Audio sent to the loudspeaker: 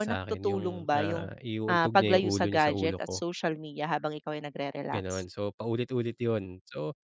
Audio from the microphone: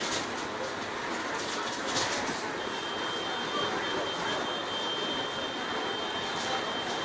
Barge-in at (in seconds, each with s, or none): none